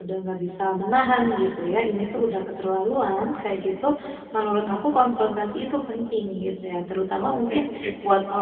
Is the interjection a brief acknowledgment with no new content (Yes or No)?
Yes